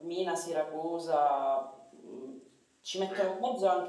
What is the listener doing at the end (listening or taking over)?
listening